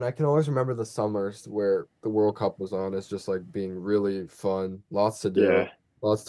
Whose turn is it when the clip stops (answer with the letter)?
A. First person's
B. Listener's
A